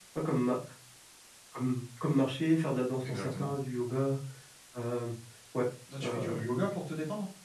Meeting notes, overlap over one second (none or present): none